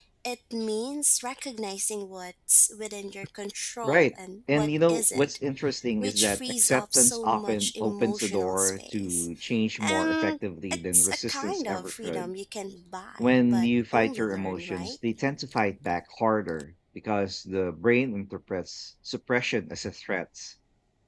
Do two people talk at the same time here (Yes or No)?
Yes